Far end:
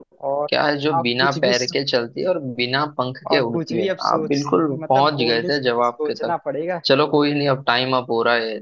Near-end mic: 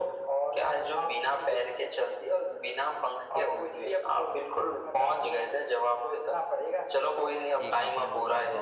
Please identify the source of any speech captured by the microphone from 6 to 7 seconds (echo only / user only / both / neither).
echo only